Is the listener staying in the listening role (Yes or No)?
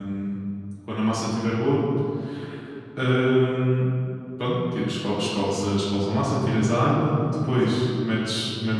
Yes